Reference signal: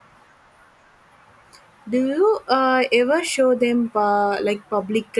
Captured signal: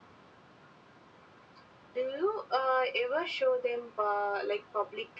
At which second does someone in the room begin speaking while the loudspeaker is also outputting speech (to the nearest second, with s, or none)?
none